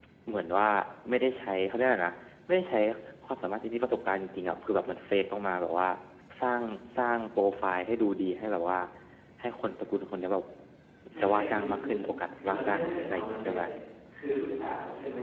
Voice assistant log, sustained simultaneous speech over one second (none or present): present